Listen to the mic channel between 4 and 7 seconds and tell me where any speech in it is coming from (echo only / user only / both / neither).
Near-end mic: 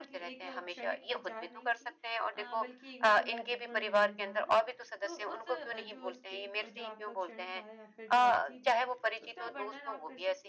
both